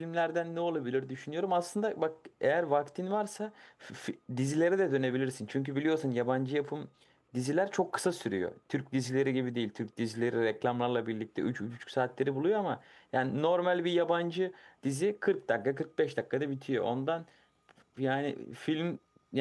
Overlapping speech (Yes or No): No